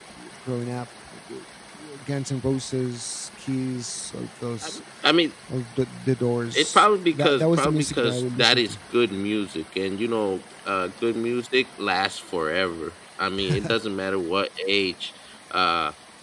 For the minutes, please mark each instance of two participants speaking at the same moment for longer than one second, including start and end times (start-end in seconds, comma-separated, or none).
7.2-8.7